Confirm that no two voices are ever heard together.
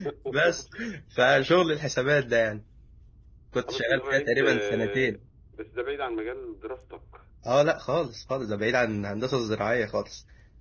No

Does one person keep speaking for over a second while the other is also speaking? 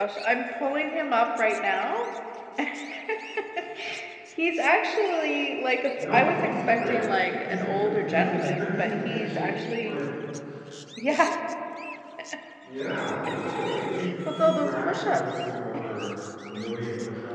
Yes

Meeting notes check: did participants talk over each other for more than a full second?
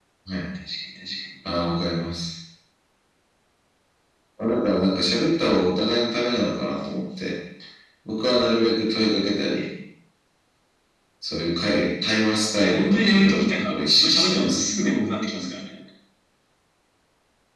Yes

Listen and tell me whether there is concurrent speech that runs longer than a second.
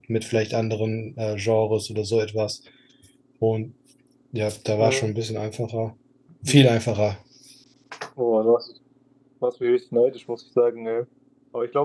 No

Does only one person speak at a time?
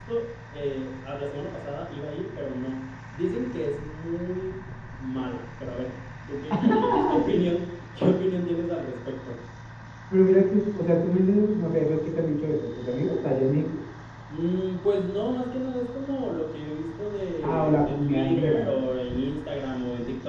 No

